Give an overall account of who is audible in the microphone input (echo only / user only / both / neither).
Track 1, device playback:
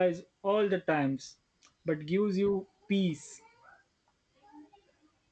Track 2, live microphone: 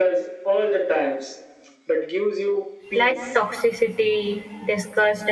both